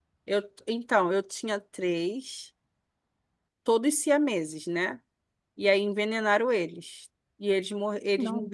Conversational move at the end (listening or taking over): listening